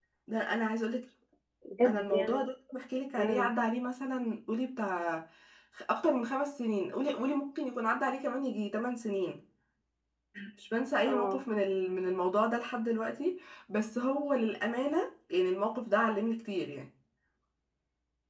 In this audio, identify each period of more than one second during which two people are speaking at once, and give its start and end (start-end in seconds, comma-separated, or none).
none